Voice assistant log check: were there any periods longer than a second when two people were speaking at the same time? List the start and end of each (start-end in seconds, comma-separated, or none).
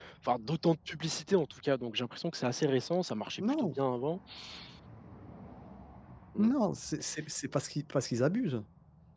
none